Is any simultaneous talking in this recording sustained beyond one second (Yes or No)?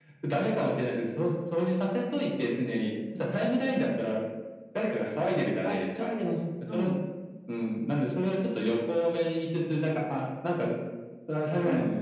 No